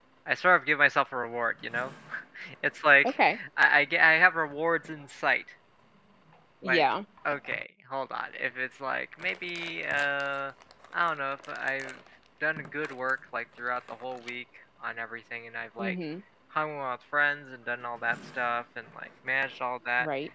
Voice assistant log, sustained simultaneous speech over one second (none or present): none